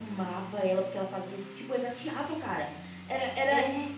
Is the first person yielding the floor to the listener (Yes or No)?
No